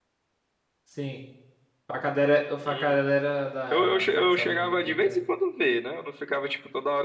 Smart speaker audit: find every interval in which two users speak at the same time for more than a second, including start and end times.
3.7-5.2

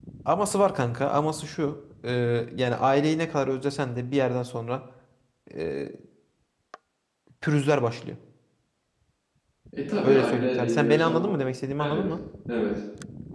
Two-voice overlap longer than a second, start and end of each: 10.0-11.3

